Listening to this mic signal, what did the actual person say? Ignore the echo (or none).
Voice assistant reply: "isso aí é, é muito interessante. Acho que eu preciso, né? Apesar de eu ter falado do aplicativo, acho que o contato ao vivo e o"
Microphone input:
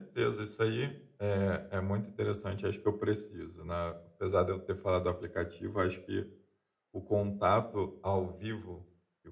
none